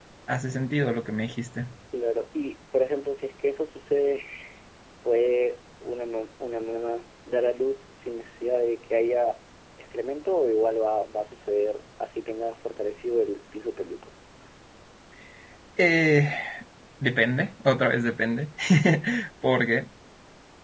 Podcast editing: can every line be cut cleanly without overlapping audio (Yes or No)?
Yes